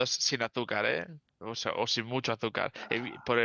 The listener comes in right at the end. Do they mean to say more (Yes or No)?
No